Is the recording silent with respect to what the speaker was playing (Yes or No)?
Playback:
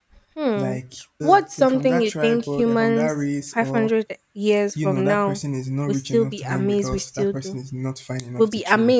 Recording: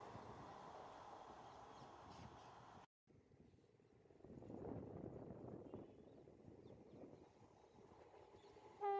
Yes